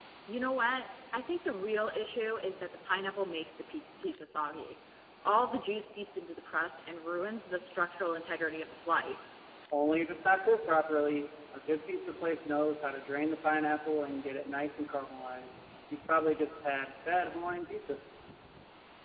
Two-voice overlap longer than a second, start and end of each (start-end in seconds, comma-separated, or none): none